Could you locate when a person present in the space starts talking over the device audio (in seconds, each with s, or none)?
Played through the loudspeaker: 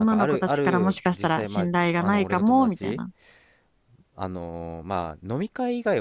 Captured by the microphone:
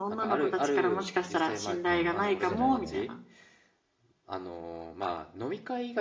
1.9 s